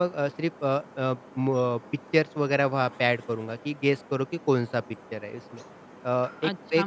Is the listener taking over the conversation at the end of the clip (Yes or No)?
Yes